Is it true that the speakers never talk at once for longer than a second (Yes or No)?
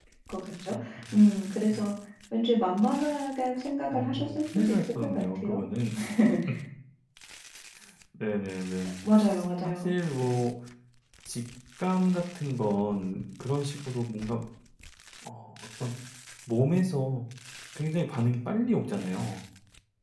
No